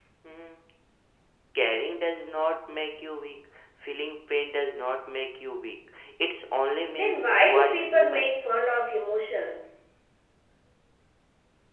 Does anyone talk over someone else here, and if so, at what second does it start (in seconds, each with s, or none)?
6.9 s